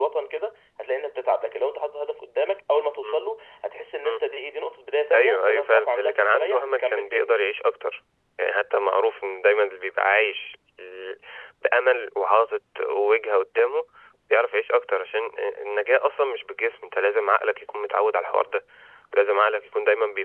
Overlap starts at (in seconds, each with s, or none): 5.1 s